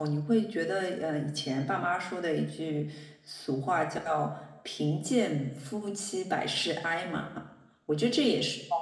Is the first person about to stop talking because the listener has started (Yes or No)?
No